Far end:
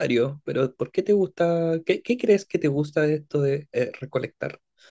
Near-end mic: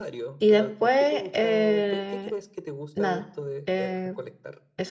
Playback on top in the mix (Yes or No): No